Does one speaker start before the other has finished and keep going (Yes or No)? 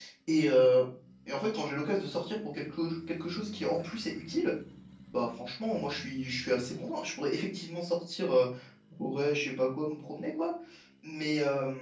No